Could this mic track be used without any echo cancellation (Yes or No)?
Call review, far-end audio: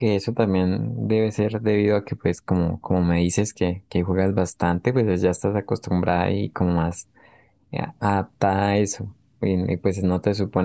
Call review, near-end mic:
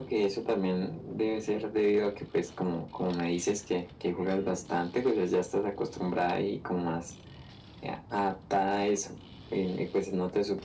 No